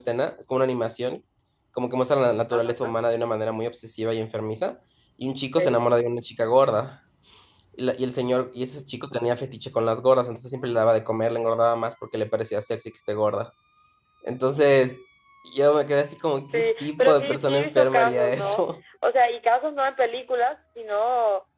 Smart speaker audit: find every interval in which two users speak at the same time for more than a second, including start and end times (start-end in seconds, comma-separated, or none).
16.5-18.6